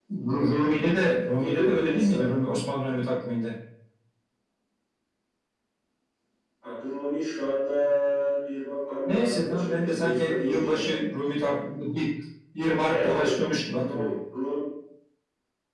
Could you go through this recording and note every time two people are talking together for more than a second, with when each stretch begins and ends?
0.5-2.2, 9.0-11.0

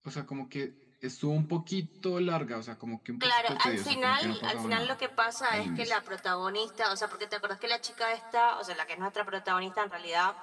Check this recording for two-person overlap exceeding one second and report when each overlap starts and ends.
3.2-5.0

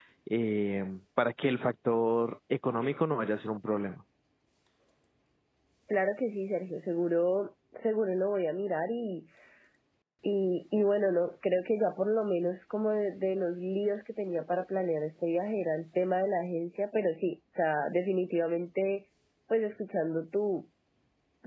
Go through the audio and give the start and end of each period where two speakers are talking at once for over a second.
none

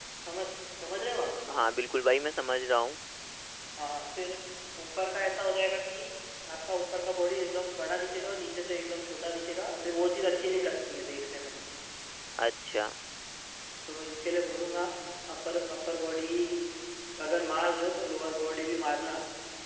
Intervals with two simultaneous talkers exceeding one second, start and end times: none

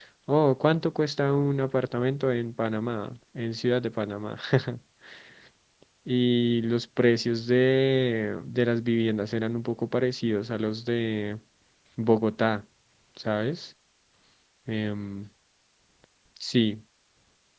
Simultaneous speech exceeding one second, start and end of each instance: none

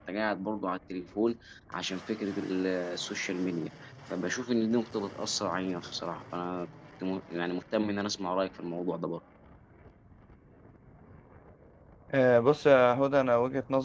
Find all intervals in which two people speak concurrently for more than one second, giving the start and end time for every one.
none

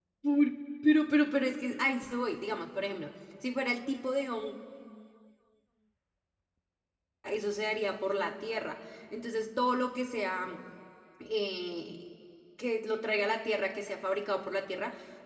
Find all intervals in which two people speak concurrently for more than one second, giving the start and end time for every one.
none

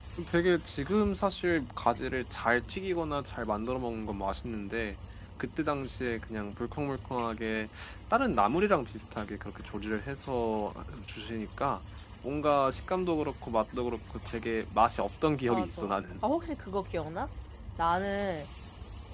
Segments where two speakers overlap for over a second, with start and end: none

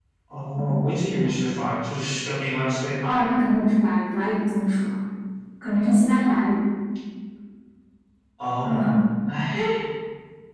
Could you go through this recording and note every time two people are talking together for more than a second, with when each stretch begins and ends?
none

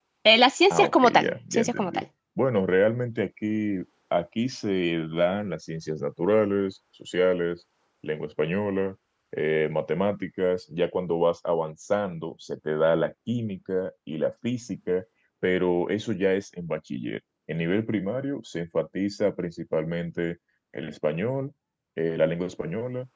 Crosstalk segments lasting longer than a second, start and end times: 0.7-2.0

